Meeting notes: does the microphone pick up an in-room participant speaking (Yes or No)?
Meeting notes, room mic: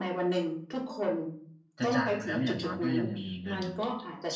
Yes